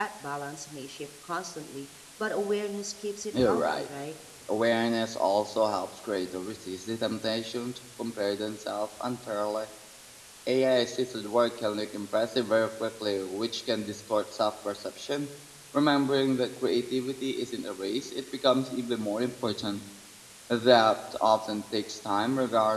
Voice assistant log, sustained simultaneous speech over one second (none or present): none